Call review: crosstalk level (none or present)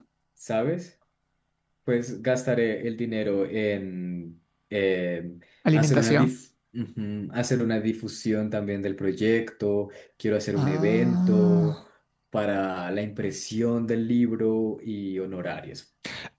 present